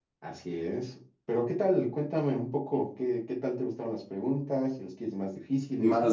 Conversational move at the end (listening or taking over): taking over